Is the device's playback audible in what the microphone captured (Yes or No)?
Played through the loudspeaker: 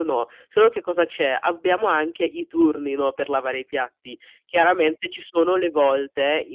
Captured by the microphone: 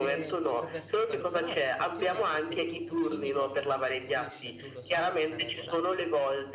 Yes